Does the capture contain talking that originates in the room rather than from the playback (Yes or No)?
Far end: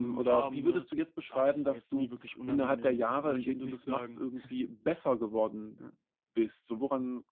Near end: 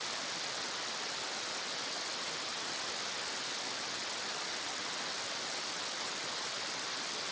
No